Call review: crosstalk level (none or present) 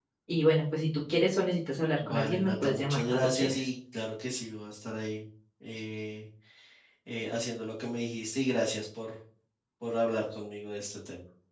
present